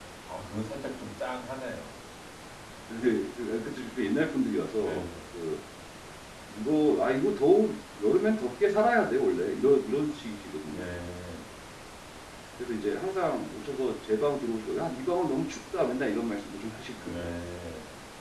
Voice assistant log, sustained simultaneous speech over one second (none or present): none